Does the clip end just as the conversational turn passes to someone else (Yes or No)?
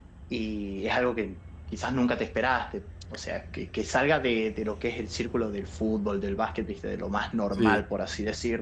No